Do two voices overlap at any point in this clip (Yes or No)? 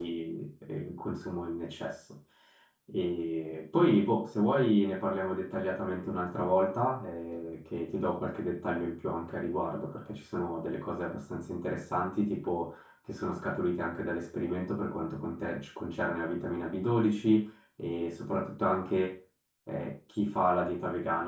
No